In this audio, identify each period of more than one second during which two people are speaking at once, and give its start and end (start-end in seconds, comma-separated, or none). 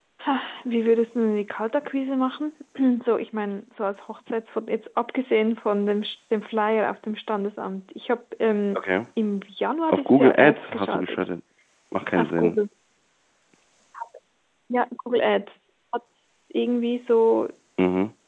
9.9-11.2